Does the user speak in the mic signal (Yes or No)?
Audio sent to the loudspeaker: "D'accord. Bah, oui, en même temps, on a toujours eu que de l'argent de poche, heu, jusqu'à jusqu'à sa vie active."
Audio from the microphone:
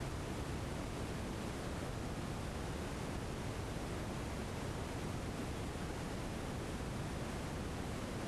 No